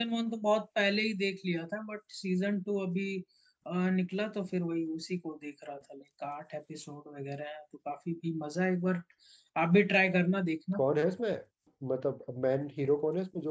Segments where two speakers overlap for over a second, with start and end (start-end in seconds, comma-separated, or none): none